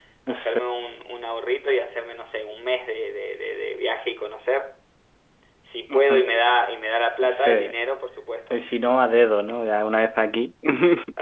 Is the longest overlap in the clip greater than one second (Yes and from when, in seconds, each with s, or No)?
No